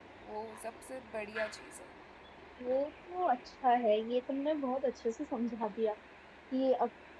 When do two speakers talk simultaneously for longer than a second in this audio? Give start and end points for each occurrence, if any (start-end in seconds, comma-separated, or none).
none